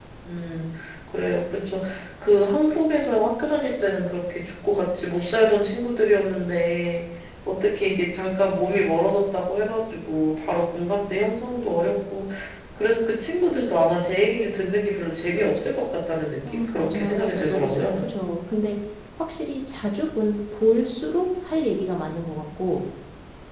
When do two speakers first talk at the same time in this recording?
16.5 s

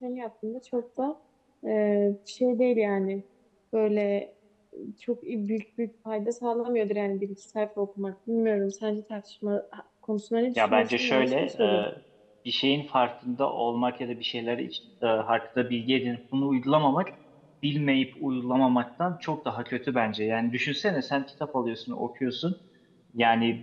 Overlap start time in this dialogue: 10.6 s

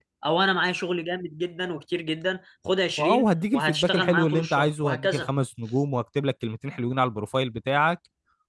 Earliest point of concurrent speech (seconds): 3.0 s

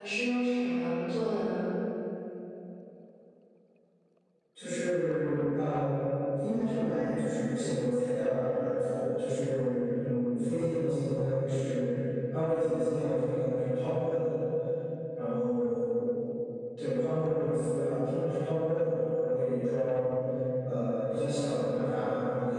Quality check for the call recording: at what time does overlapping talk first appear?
none

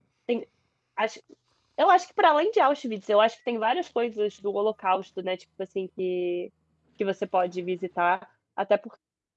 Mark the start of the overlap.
none

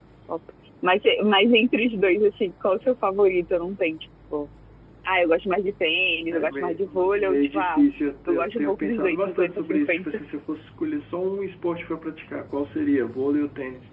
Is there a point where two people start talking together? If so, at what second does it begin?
6.3 s

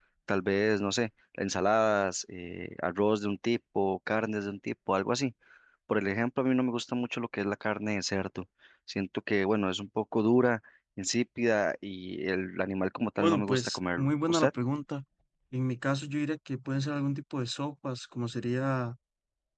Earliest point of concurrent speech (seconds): 13.2 s

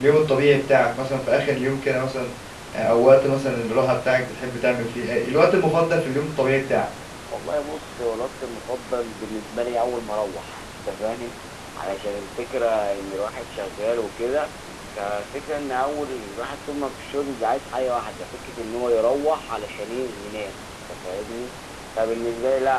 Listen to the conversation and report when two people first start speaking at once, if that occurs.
none

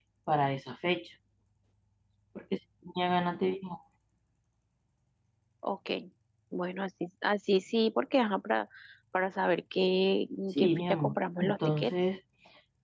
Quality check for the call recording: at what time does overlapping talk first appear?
10.6 s

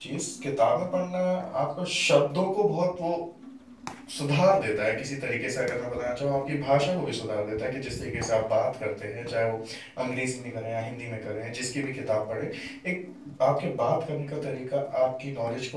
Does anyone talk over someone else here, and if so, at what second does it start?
none

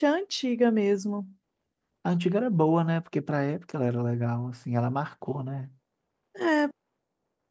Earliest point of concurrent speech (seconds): none

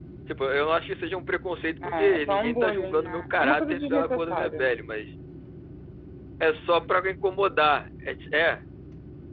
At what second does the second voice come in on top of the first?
1.8 s

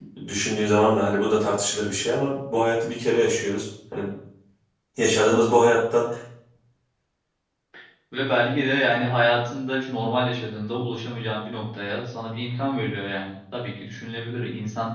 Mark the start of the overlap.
none

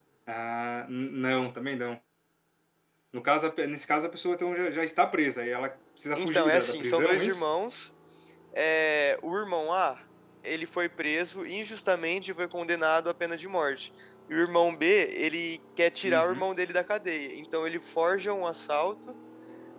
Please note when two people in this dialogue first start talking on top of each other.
6.2 s

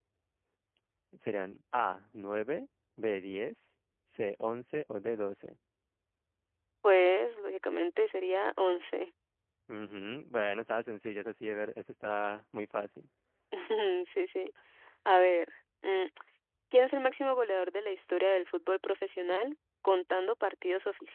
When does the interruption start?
none

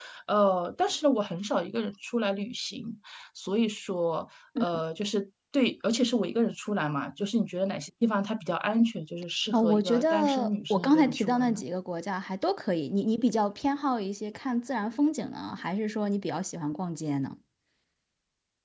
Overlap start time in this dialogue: 9.5 s

